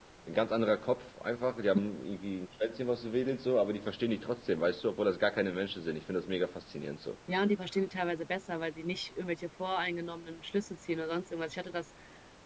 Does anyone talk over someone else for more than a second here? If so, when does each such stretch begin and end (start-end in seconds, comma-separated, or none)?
none